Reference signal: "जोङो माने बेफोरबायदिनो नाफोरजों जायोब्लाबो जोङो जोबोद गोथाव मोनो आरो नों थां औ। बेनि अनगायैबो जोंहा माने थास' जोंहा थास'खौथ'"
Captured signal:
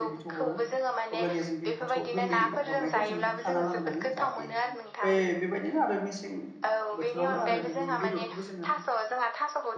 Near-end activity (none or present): present